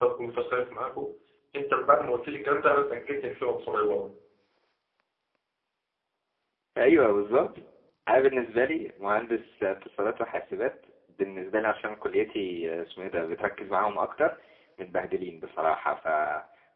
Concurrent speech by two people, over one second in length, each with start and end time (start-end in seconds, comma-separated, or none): none